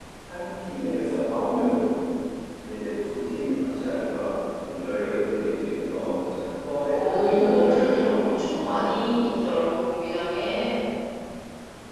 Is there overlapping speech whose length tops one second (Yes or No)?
Yes